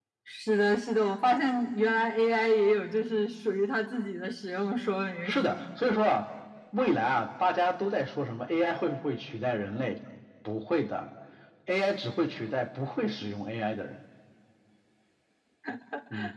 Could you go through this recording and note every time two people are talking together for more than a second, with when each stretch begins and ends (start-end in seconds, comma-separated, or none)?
none